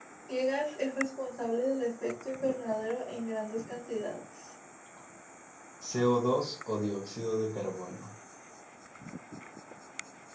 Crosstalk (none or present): none